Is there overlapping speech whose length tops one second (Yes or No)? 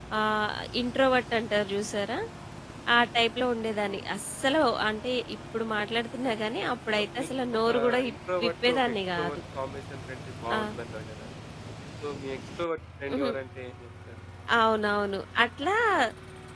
Yes